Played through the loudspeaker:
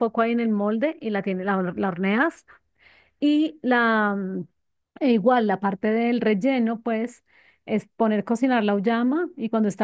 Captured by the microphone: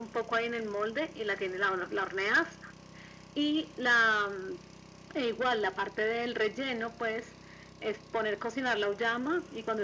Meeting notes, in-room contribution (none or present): none